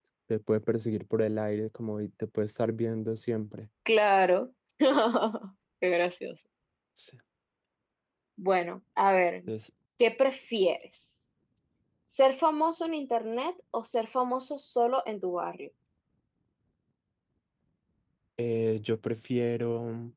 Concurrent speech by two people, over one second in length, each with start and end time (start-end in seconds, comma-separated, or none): none